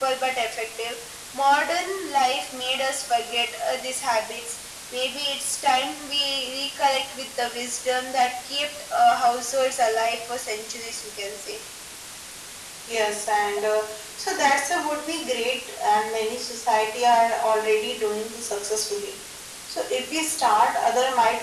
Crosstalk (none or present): none